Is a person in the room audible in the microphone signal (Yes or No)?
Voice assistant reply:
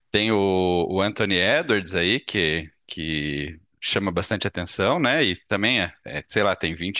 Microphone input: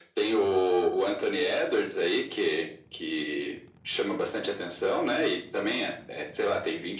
No